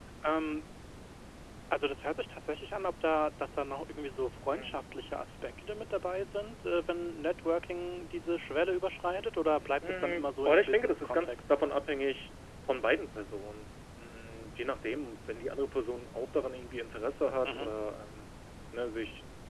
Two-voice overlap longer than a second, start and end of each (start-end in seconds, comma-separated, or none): 9.9-11.5